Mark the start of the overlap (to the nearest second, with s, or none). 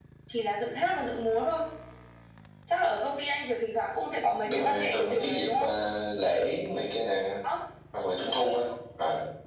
4 s